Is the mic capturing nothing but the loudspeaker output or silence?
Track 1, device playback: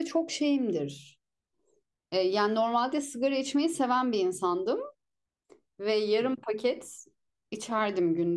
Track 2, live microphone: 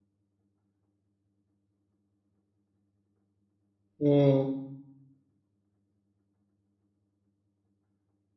No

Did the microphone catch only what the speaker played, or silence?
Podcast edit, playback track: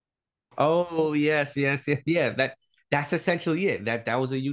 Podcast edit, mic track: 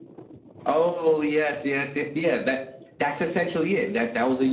Yes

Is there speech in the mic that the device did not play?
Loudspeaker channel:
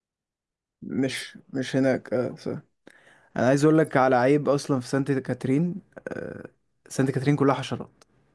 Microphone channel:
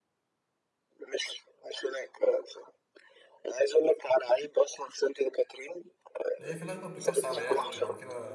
Yes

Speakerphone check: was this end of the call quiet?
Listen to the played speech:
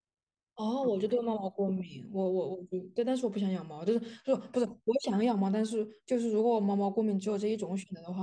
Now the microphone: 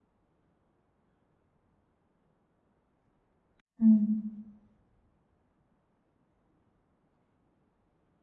No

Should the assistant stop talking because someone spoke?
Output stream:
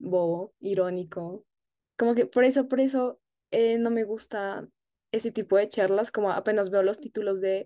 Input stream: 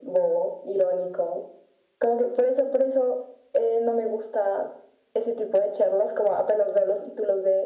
No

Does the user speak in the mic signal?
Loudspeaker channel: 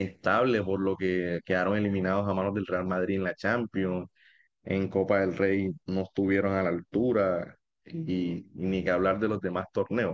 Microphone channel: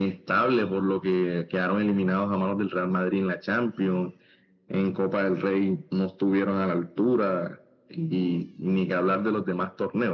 No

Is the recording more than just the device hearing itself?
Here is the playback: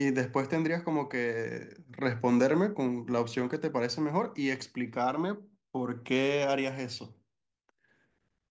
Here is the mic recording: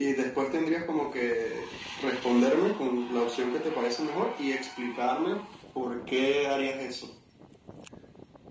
No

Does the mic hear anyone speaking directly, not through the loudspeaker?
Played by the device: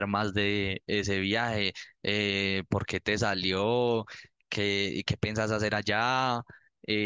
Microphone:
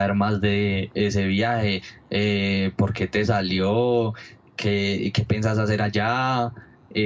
No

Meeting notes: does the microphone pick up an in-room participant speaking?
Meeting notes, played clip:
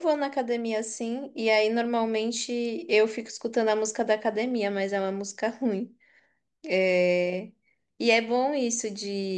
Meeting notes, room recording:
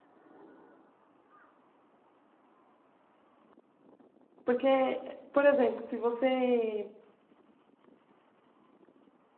Yes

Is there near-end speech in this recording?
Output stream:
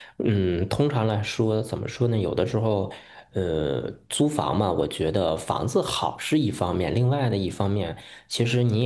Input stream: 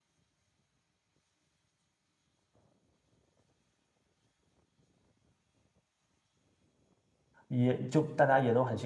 Yes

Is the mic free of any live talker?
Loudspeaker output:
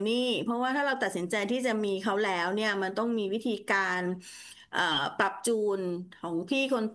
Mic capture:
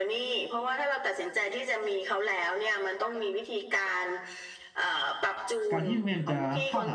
No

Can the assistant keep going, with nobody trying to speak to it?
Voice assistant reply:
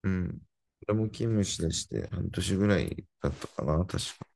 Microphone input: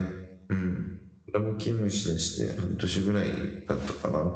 Yes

